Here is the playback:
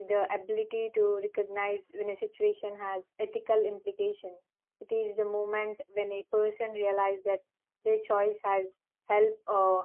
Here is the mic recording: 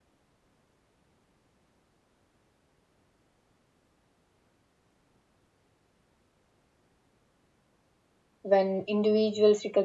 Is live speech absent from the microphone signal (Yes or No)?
No